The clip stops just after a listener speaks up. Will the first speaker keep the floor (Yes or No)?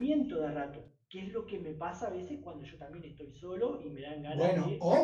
No